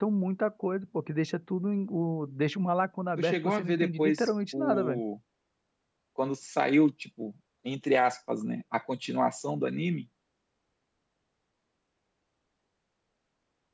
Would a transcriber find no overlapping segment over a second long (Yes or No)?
No